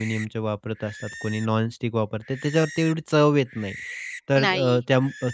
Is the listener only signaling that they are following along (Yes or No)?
Yes